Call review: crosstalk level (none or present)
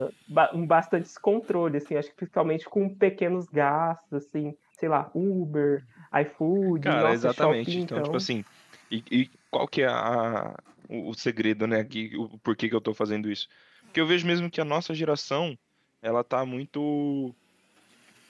present